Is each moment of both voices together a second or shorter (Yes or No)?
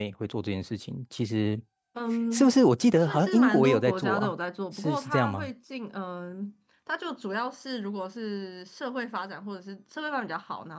No